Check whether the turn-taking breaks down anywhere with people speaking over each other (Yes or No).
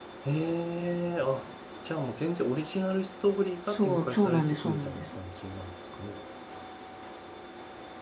Yes